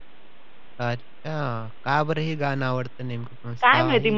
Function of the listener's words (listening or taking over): taking over